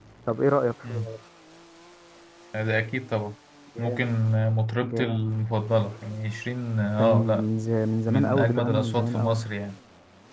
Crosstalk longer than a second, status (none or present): present